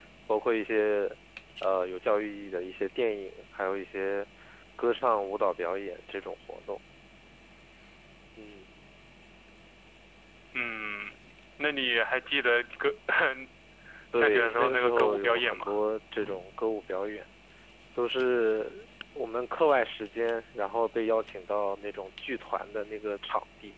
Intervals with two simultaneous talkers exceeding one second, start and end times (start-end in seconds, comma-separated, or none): 14.2-15.7